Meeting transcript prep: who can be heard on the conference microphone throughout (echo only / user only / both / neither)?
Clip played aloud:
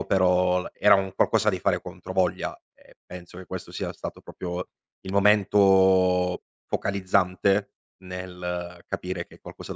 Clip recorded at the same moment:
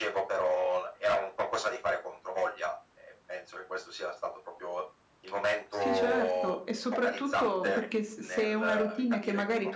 both